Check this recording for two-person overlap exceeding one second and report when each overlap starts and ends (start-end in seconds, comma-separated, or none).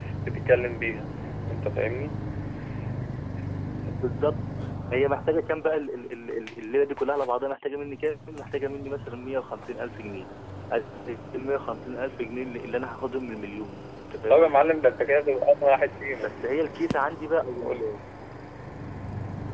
none